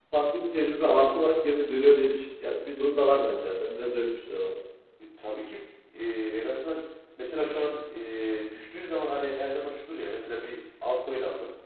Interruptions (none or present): none